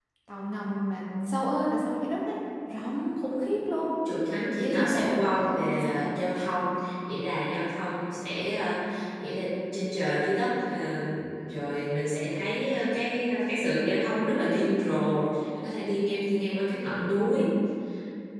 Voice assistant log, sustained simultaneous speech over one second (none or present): present